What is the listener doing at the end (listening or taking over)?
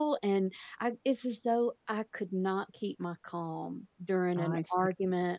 listening